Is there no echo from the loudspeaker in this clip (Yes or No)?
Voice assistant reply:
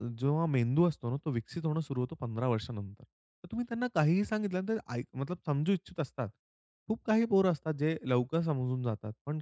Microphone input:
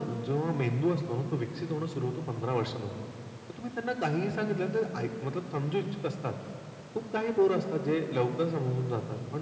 No